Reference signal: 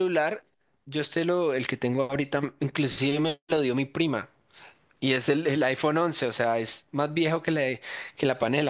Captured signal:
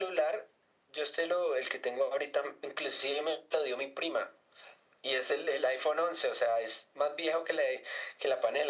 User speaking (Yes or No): No